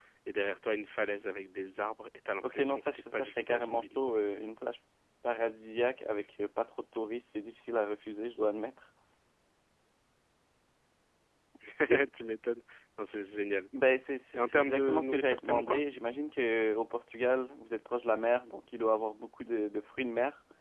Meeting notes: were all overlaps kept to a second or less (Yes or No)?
No